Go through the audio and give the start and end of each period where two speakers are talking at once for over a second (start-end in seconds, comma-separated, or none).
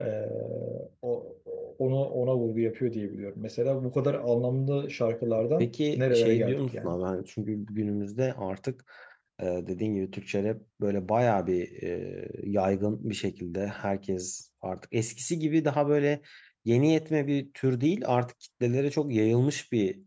5.6-7.0